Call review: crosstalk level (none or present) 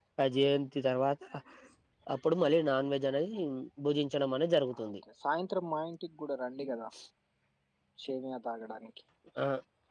none